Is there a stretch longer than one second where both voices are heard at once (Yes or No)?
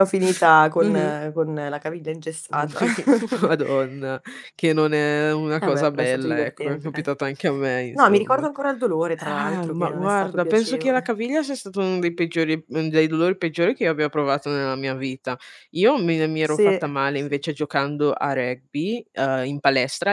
Yes